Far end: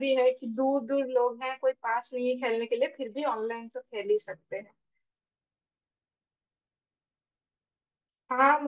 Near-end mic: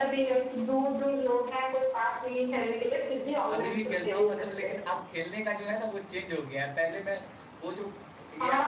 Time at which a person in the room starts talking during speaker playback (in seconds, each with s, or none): 3.5 s